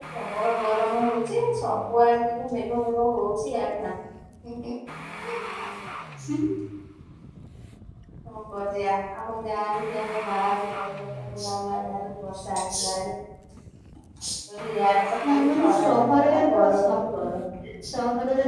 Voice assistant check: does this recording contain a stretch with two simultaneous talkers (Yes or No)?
Yes